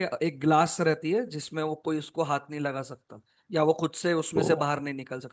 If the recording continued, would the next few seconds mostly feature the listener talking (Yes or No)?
No